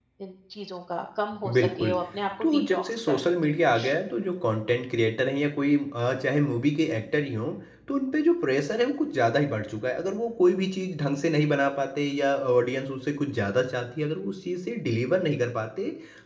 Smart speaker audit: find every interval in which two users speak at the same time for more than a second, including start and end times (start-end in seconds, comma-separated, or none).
2.4-3.9